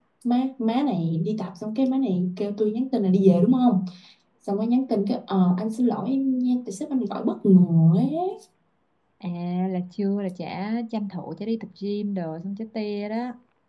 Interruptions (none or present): none